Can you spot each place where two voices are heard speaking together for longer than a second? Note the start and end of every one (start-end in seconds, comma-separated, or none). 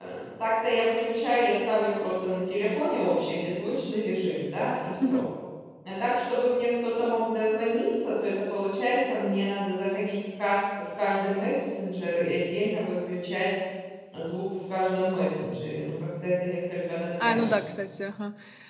none